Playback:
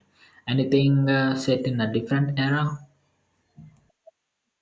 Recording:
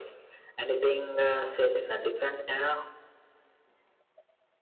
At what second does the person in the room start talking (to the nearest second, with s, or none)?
none